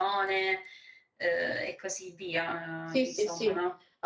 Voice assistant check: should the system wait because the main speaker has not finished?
No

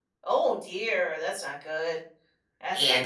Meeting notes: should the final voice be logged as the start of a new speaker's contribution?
Yes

